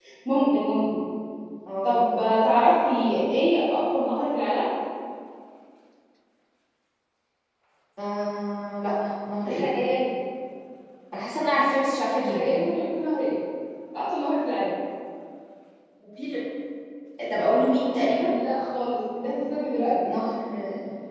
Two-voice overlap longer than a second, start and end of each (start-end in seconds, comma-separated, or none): none